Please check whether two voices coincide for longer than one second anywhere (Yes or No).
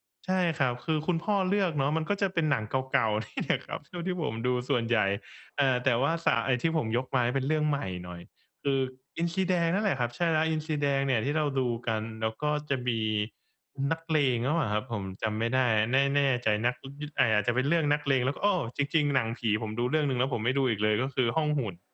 No